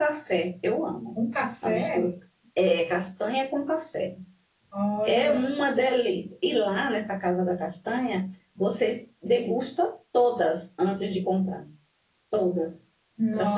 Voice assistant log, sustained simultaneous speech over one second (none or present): none